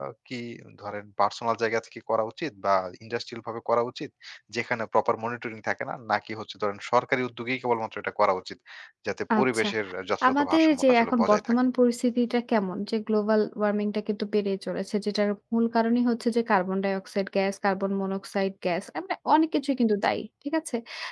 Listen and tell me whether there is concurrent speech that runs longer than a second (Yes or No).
Yes